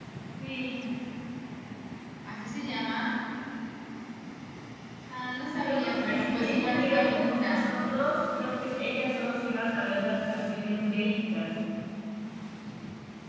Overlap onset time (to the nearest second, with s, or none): 6 s